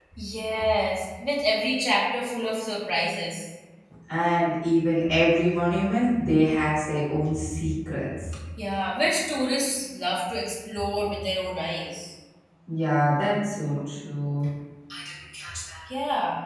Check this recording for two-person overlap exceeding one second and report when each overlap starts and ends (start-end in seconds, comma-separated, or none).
none